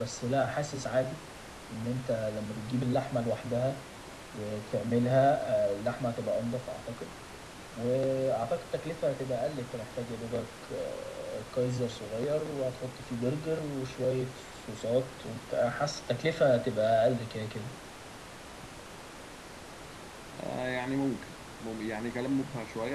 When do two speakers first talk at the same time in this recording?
none

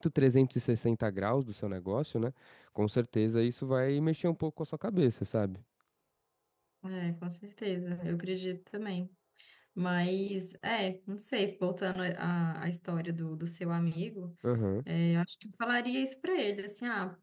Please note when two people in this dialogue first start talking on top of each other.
none

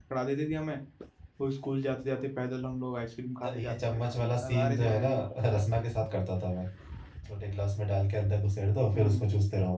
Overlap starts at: 3.4 s

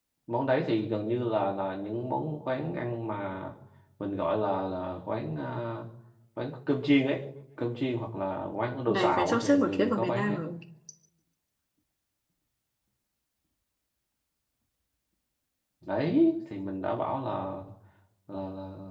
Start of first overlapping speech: 8.9 s

